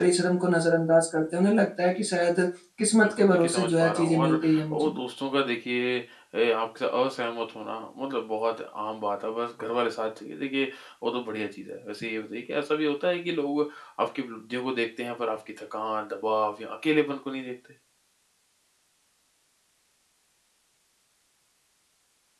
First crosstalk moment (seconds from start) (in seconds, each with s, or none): 3.0 s